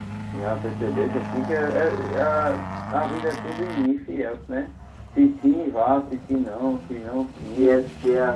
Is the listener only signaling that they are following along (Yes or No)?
No